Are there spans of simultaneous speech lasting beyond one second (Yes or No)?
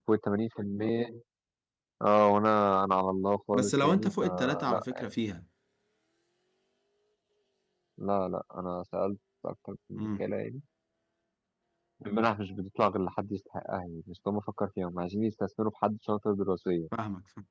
Yes